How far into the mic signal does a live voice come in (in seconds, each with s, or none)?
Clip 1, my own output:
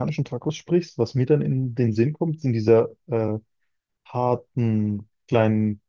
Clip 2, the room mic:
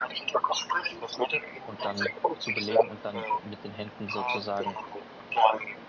1.6 s